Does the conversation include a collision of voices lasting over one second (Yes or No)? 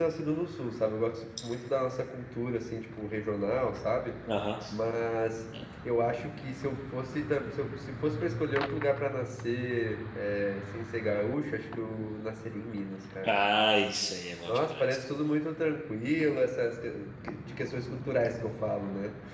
No